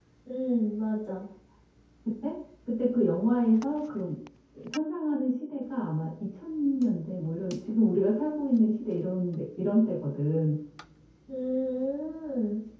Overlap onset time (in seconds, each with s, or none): none